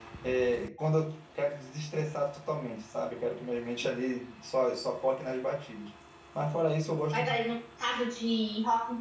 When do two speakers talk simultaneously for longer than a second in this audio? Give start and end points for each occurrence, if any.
none

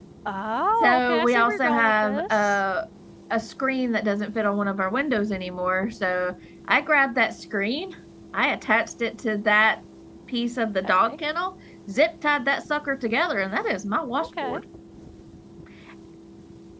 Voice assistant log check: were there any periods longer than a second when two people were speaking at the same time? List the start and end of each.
0.8-2.6

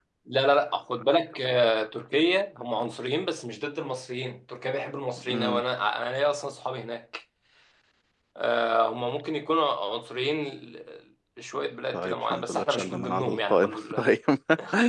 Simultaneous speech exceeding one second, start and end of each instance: 11.9-14.0

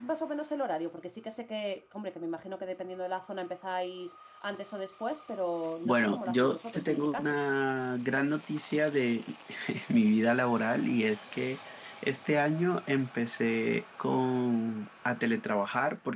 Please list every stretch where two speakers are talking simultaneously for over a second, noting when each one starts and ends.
5.8-7.3

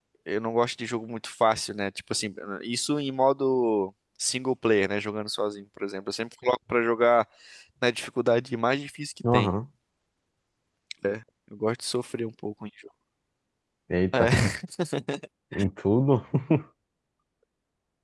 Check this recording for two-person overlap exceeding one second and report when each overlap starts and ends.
none

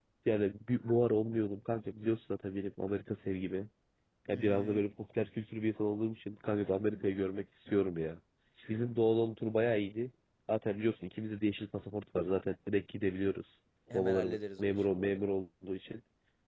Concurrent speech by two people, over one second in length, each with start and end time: 13.9-15.2

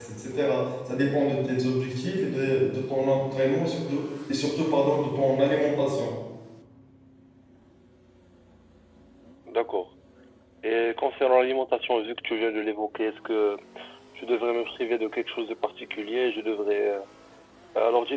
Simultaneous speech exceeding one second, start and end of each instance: none

